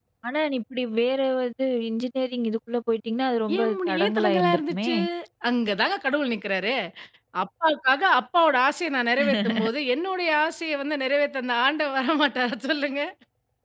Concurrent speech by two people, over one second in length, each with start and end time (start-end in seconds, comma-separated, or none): 3.6-4.9